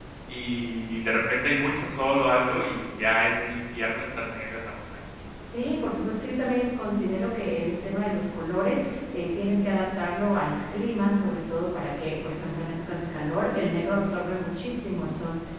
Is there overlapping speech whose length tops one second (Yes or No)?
No